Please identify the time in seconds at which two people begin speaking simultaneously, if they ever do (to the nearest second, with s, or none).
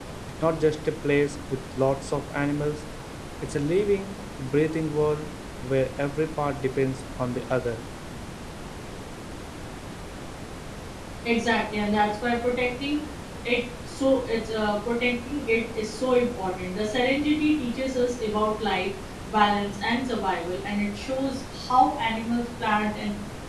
none